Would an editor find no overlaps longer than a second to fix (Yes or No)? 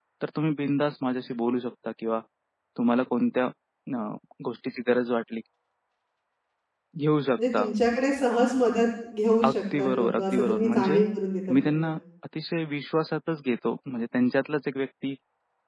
No